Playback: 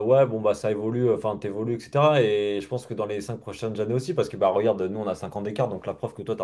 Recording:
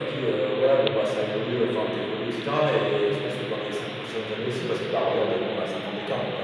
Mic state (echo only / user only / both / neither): echo only